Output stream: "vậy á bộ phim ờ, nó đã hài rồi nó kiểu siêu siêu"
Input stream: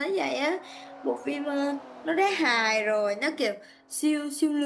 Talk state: echo only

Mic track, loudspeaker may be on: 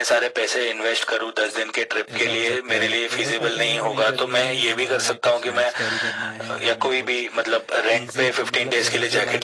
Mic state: both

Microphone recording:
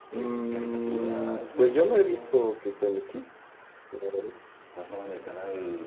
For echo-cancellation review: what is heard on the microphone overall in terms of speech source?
both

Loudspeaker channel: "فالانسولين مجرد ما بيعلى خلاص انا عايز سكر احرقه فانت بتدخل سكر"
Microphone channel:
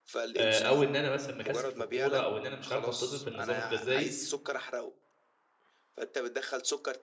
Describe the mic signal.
both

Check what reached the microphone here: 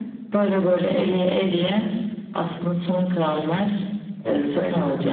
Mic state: both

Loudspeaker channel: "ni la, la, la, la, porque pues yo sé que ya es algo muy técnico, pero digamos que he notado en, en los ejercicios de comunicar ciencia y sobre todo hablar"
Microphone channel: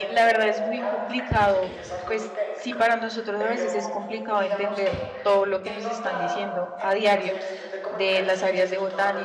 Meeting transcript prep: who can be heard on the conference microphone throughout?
both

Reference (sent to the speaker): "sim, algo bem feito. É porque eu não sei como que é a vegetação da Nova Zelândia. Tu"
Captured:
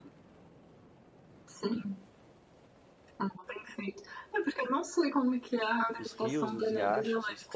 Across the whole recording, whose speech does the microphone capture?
both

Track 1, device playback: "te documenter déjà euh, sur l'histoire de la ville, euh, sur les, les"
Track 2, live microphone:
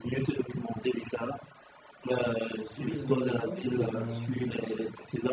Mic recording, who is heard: both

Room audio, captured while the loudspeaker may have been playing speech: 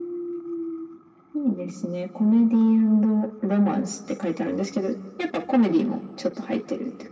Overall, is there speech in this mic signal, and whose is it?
echo only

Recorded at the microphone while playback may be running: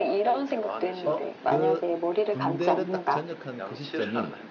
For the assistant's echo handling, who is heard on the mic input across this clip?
both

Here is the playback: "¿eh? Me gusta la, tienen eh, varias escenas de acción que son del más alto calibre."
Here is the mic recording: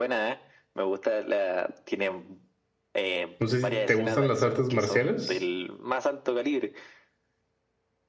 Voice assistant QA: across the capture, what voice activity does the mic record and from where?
both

